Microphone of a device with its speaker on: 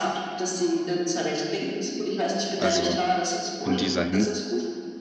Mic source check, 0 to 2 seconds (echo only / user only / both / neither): echo only